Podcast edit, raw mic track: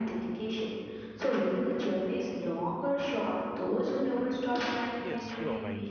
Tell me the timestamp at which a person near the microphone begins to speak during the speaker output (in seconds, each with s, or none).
5.0 s